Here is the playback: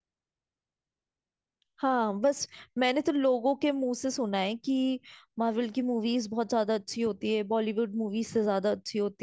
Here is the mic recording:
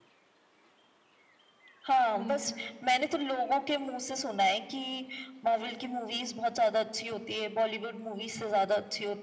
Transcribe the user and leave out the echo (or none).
हम्म